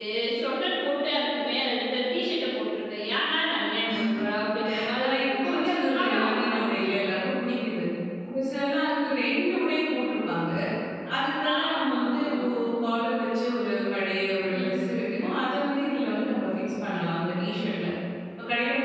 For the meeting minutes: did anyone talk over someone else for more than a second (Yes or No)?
Yes